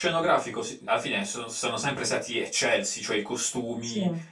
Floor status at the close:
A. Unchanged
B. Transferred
A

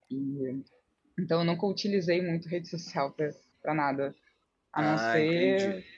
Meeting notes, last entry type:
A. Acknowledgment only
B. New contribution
B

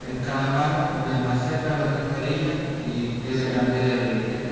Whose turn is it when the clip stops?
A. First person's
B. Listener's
A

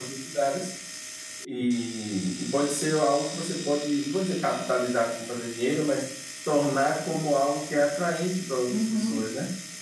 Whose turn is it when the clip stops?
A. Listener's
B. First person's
A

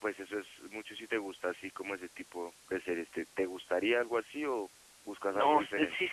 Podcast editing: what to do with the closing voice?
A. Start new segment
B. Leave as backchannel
A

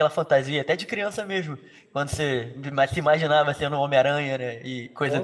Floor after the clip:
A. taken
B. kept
A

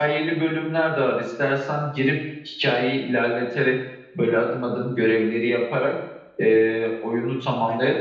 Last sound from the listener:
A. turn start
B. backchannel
B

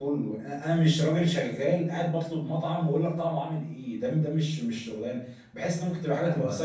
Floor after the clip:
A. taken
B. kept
A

